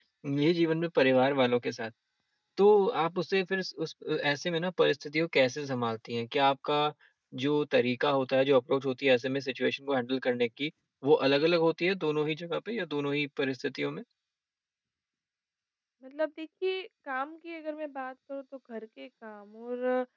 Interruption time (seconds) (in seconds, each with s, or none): none